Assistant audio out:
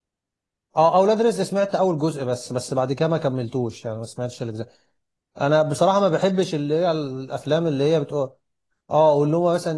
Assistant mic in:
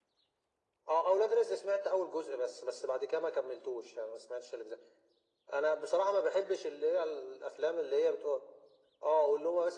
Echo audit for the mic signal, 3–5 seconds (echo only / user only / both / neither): echo only